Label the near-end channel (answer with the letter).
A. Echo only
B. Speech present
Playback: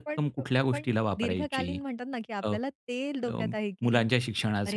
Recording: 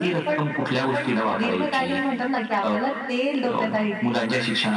A